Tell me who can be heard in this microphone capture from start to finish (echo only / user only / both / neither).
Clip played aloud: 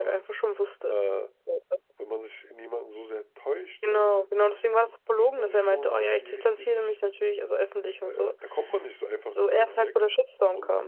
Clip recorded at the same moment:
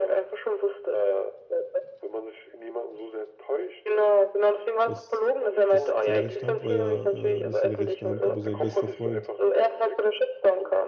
both